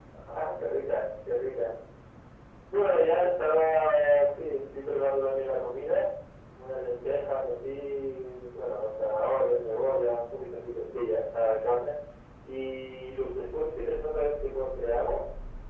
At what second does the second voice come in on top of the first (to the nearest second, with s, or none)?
none